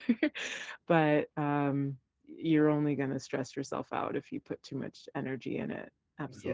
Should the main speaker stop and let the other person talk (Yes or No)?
Yes